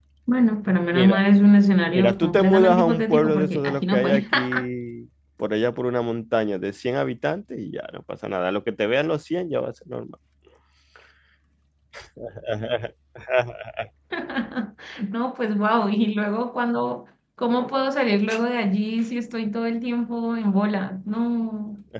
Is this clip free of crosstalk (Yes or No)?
No